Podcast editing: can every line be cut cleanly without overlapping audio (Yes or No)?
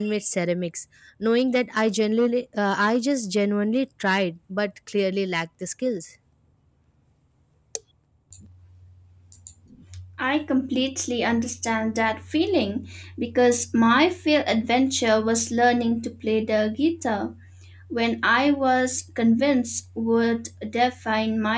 Yes